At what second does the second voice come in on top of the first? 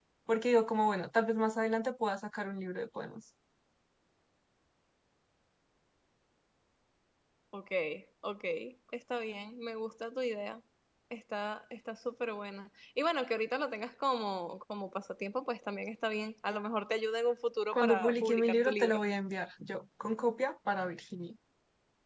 17.7 s

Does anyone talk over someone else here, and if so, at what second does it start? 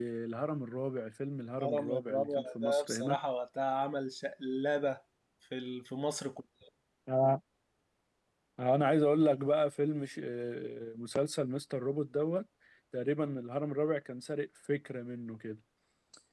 1.6 s

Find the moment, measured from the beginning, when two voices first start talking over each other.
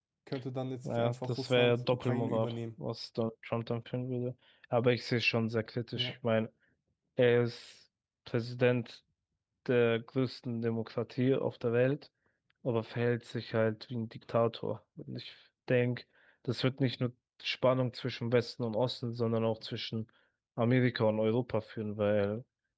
0.8 s

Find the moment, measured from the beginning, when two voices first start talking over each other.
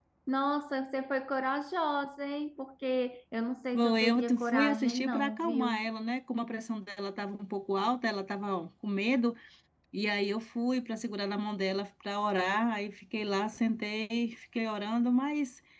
3.7 s

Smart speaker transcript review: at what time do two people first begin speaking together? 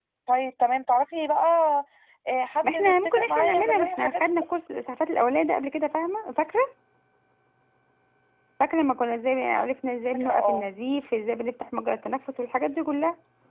2.6 s

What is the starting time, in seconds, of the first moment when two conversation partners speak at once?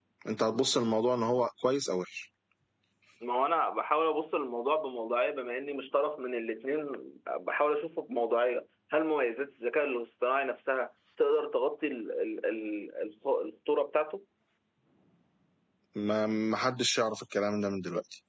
none

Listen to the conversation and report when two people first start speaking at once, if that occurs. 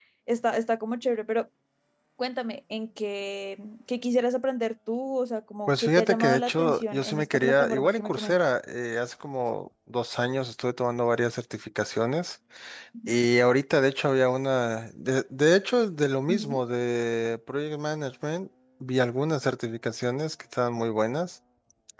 5.7 s

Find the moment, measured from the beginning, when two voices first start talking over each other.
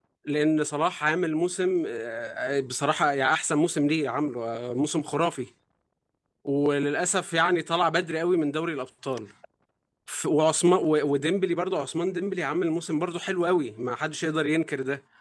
none

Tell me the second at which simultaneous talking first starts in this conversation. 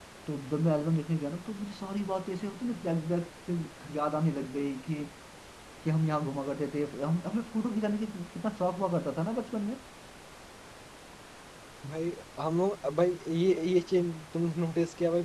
none

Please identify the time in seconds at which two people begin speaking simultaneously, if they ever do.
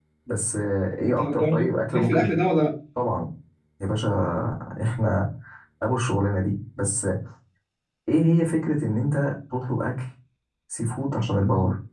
1.0 s

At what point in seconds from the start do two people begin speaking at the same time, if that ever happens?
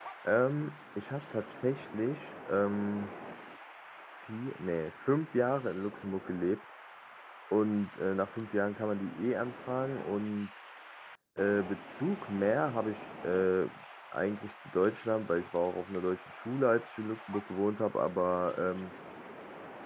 none

